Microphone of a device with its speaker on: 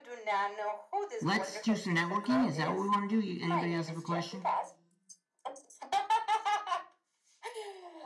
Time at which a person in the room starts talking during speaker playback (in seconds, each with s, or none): 1.2 s